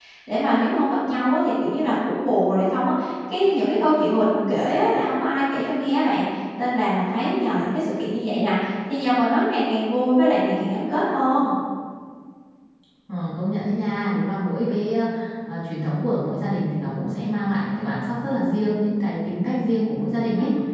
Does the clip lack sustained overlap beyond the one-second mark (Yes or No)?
Yes